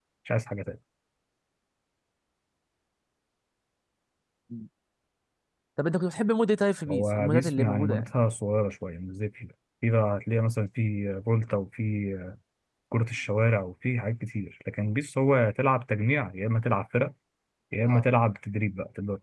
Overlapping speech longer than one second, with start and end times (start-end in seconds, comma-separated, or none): 6.9-8.1